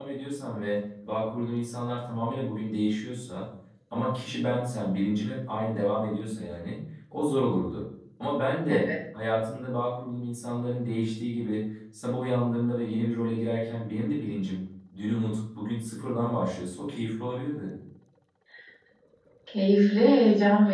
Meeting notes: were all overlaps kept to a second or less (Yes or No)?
Yes